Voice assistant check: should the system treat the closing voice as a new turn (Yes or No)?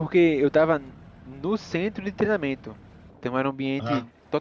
No